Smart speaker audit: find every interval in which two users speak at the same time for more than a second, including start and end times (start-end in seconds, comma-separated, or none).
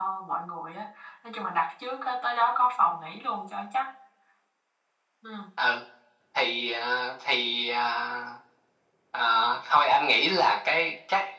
none